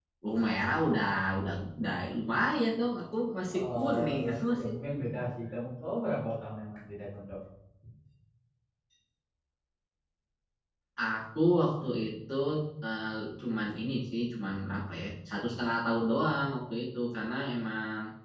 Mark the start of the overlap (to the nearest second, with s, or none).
3 s